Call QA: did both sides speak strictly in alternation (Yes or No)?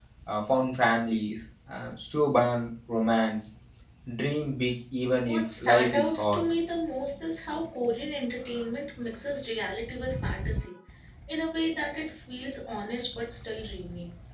No